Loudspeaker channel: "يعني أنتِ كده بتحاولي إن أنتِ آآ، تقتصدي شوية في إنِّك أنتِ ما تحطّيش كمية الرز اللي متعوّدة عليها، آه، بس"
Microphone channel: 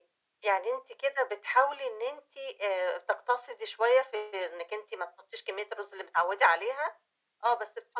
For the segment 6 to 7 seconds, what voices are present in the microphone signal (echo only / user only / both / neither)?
echo only